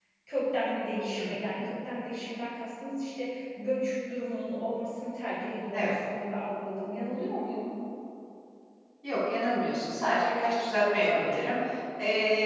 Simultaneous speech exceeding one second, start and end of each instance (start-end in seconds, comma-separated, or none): none